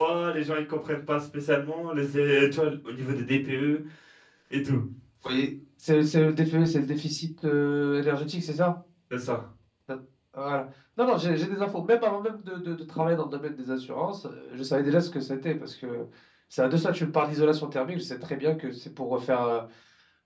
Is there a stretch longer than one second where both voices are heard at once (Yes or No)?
No